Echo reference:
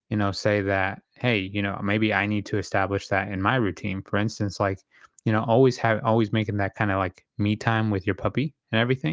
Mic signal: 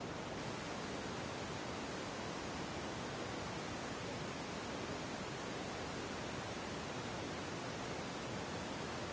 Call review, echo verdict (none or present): none